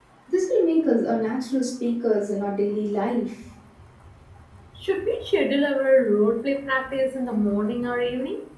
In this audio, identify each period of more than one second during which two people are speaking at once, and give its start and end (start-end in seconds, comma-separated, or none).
none